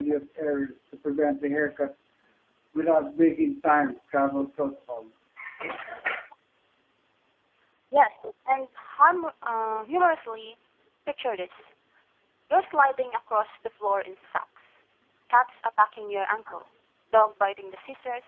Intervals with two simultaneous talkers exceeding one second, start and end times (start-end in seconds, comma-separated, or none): none